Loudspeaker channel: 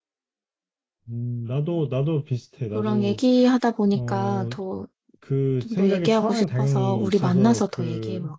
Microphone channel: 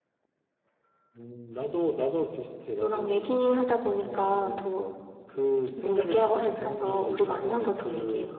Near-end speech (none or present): none